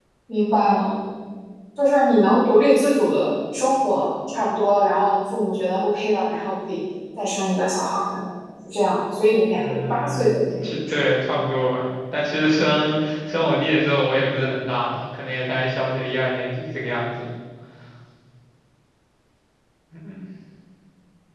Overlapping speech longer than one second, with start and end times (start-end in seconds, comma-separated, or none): 9.5-11.4